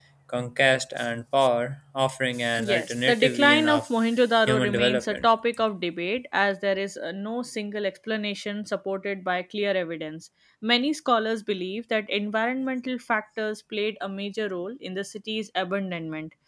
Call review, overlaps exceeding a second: present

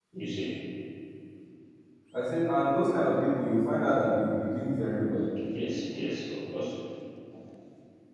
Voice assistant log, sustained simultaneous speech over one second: none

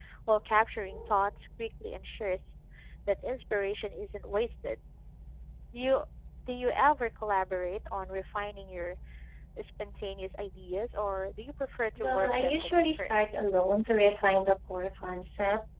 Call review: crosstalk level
present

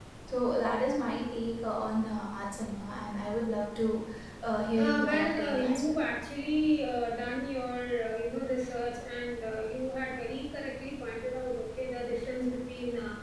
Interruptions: present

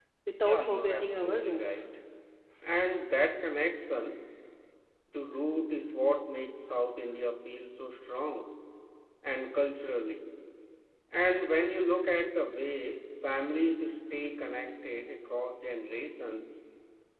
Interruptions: present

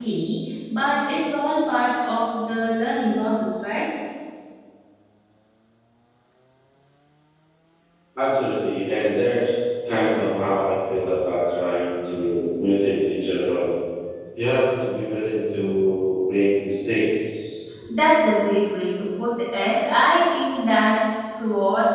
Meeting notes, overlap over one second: none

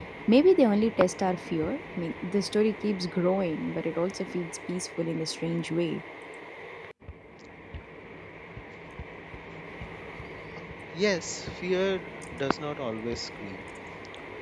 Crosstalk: none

